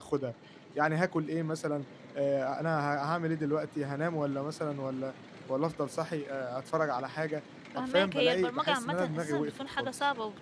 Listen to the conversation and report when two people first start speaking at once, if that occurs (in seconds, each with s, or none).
7.7 s